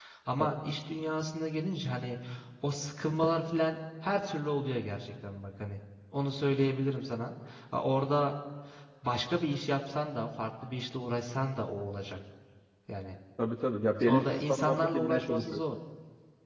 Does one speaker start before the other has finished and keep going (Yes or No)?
Yes